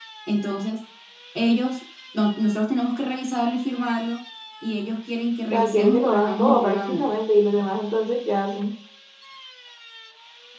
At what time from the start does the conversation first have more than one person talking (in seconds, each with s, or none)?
5.5 s